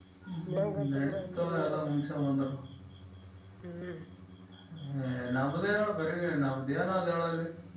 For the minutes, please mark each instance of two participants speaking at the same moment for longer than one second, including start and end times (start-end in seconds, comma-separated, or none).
0.5-1.7